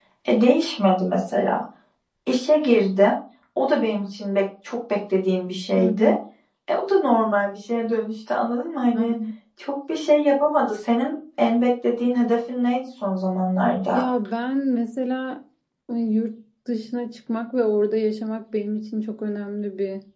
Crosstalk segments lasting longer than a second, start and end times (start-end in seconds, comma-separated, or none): none